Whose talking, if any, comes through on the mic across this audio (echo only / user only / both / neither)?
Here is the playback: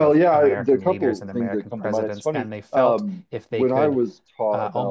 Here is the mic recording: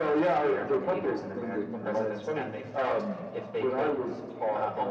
echo only